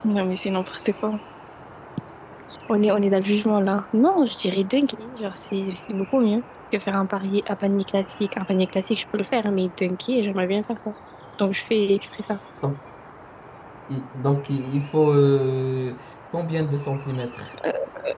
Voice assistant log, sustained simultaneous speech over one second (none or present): none